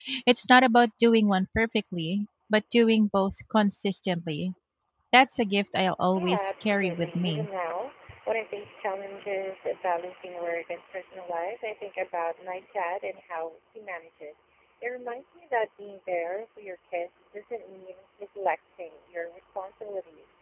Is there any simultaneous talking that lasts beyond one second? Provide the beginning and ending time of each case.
6.1-7.5

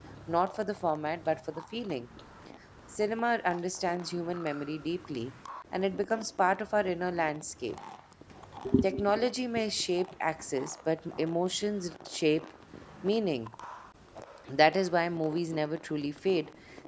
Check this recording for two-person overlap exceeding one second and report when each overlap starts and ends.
none

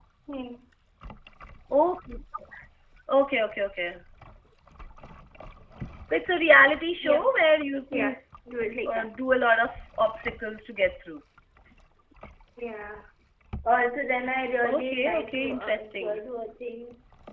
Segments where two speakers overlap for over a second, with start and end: 14.6-16.2

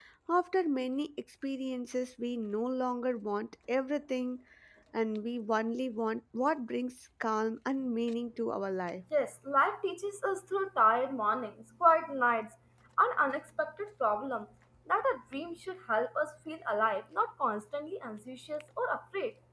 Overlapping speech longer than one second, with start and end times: none

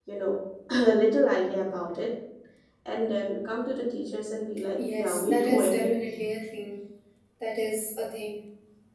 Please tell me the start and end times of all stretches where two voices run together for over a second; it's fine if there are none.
4.9-6.2

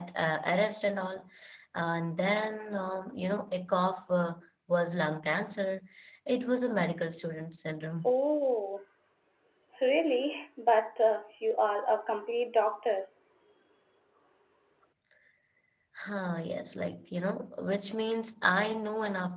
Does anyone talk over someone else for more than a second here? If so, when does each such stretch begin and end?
none

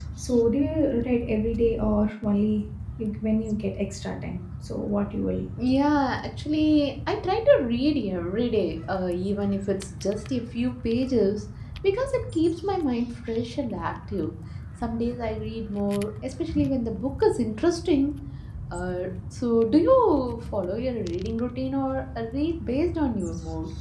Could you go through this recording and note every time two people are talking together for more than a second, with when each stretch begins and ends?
none

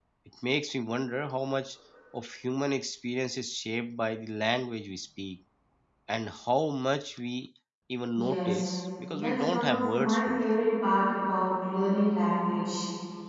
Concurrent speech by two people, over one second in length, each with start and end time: 9.2-10.4

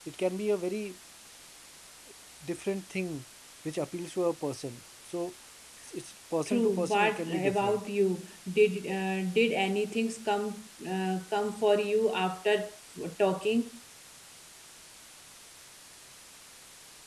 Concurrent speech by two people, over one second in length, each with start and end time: 6.5-7.9

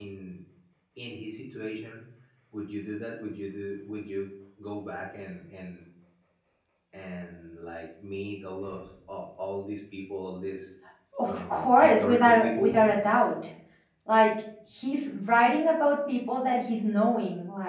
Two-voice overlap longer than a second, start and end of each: 11.3-12.8

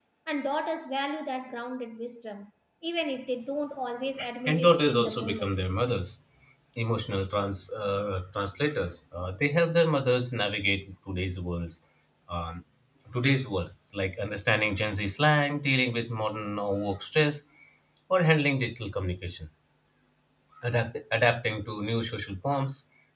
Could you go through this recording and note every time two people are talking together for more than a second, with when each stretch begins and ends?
4.5-5.7

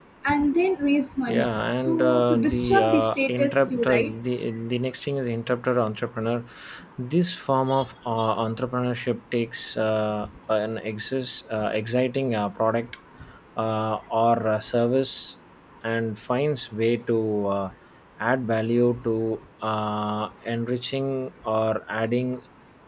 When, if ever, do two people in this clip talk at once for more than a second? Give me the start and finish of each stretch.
1.3-4.1

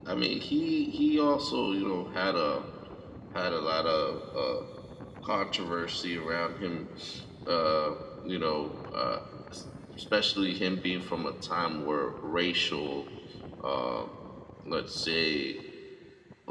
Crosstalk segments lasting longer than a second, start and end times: none

